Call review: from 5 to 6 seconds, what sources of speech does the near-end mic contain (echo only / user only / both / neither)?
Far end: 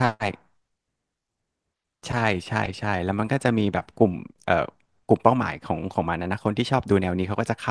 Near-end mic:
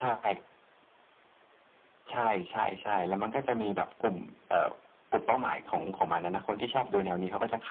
echo only